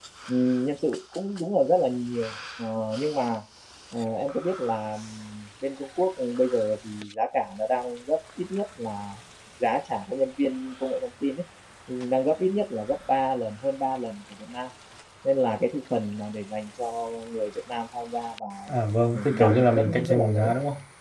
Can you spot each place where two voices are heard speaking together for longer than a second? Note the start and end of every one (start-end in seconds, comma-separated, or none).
19.1-20.5